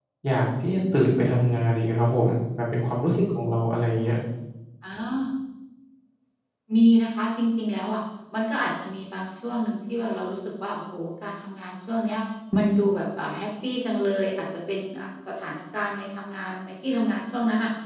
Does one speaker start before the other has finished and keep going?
No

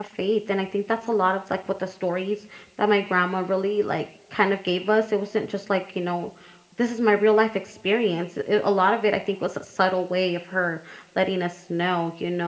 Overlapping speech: No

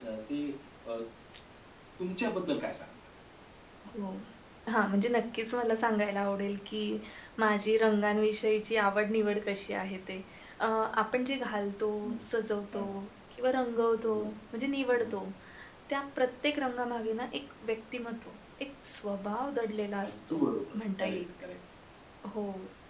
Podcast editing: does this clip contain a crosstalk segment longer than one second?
No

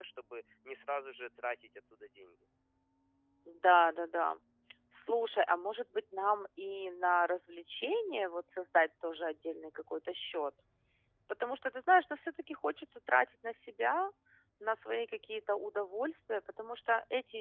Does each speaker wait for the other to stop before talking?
Yes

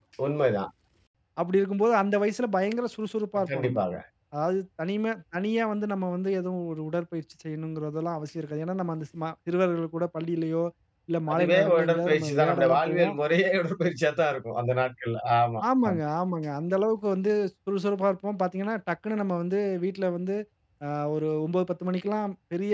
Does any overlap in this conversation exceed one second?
Yes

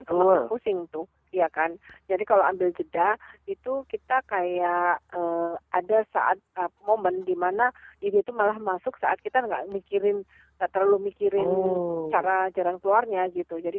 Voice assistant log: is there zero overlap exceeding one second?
Yes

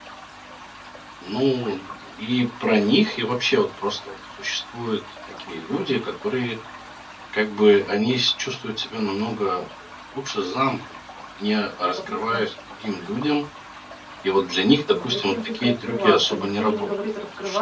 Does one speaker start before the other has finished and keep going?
Yes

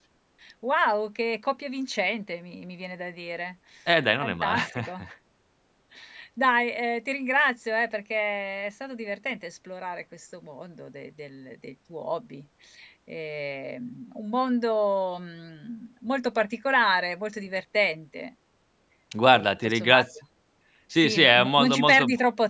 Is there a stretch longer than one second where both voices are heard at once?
Yes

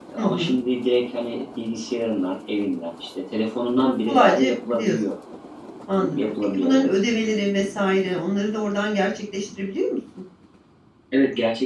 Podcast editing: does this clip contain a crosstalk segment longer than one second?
Yes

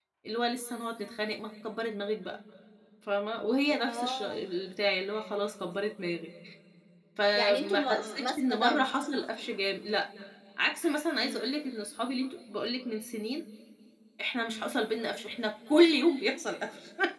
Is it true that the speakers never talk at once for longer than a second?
No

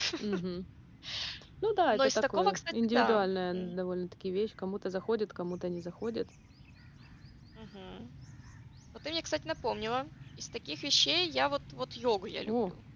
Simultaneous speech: Yes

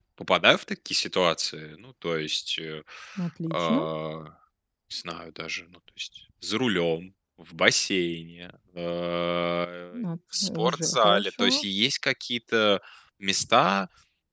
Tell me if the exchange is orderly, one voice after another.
No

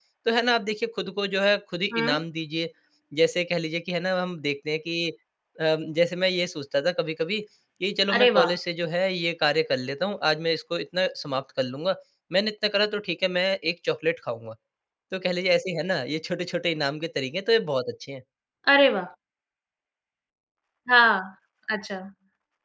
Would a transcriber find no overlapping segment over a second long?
Yes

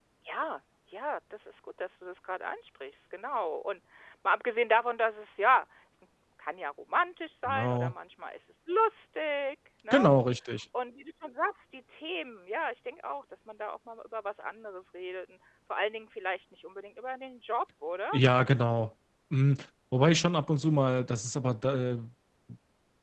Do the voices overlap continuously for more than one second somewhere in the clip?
No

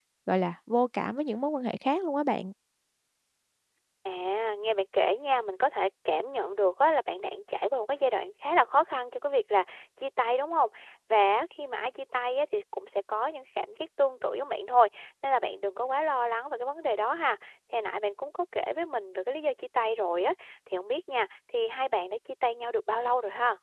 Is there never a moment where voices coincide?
Yes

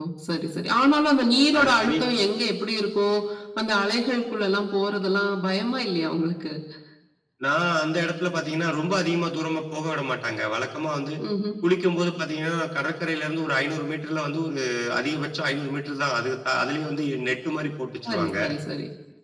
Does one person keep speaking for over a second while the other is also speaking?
No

